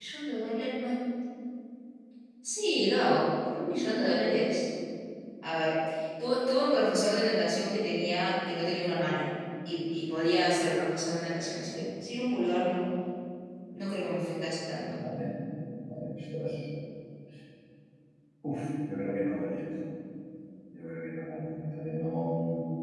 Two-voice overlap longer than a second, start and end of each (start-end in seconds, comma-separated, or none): none